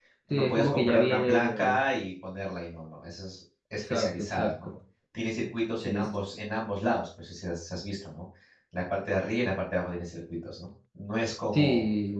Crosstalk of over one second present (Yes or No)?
Yes